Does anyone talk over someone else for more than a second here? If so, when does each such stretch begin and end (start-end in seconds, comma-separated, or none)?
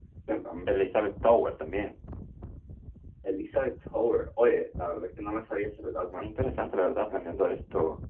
none